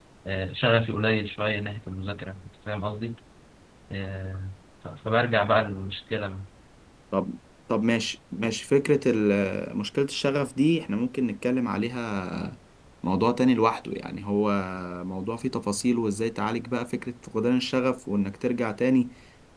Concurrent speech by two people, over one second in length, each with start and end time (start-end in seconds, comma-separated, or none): none